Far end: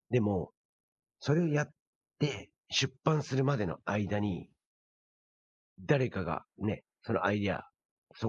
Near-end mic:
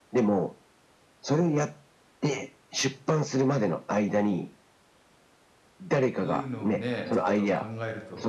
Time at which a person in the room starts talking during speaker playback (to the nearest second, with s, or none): 6 s